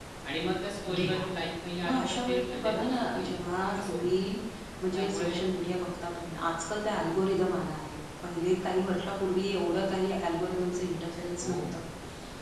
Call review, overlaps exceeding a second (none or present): present